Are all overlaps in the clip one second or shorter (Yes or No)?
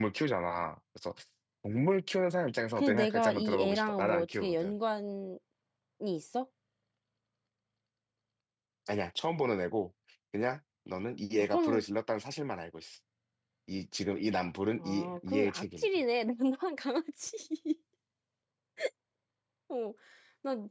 No